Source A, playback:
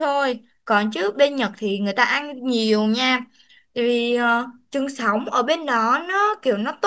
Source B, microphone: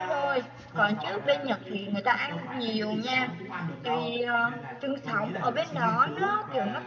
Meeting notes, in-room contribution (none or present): present